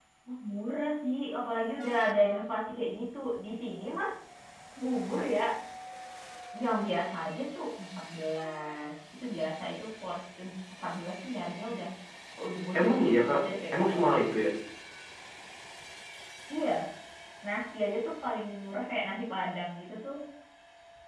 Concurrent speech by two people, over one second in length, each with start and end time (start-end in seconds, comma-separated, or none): 12.8-14.4